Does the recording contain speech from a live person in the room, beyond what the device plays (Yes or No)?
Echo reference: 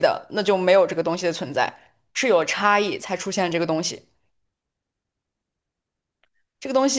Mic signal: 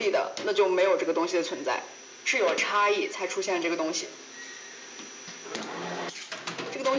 No